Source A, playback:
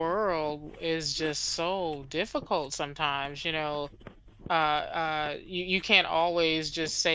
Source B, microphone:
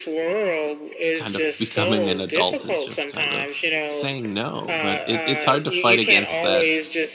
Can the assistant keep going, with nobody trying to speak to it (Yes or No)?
No